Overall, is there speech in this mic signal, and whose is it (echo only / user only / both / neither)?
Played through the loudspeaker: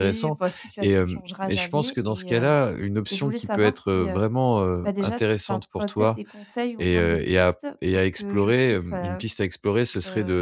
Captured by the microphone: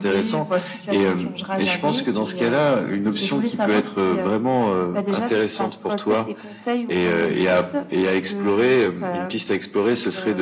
echo only